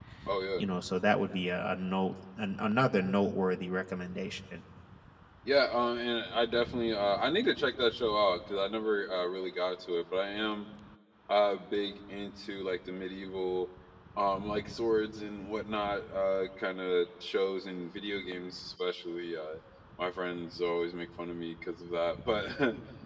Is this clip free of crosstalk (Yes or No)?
Yes